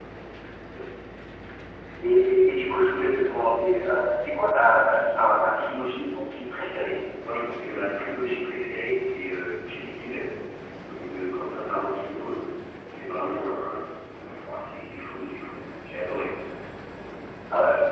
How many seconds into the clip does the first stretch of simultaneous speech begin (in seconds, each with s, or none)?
none